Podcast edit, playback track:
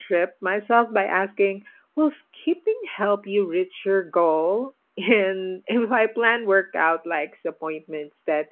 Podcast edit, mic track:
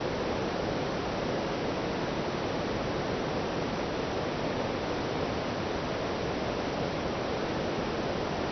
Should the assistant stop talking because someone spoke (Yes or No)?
No